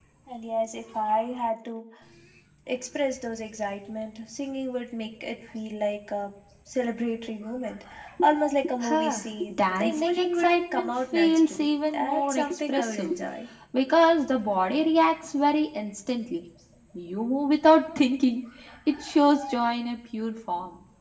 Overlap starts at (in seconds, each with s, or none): 8.8 s